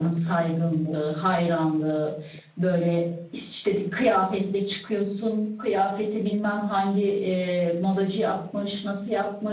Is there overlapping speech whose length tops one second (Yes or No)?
No